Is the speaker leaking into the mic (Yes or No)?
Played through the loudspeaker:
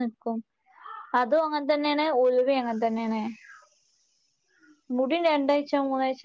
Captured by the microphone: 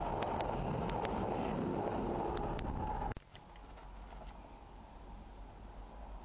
No